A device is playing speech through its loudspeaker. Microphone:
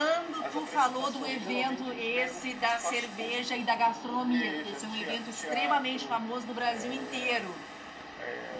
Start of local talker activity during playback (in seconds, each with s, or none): none